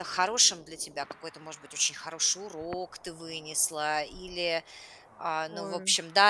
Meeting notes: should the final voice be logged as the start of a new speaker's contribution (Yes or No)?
No